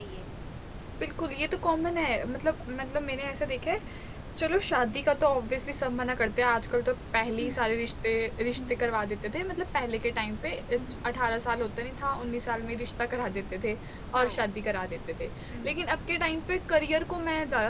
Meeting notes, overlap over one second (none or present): none